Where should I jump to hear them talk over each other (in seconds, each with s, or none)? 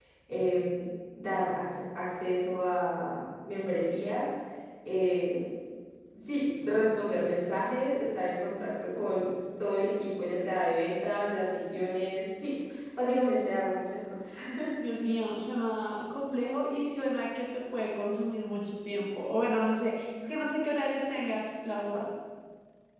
none